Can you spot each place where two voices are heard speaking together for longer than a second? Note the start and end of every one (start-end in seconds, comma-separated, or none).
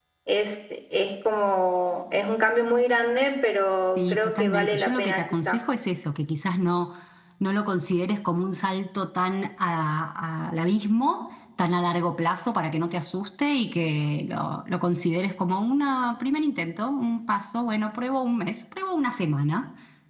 4.0-5.6